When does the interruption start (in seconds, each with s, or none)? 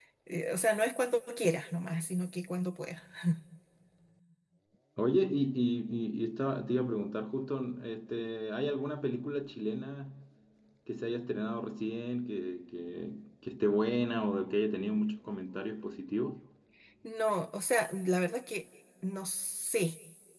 none